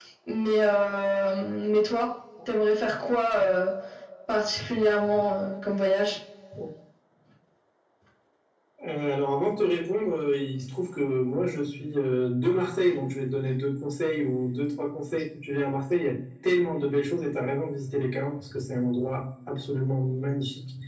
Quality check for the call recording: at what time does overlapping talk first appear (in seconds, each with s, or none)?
none